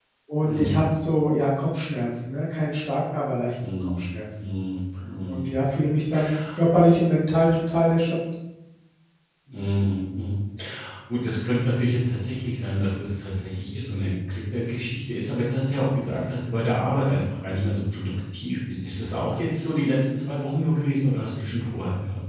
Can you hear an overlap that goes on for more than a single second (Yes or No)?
No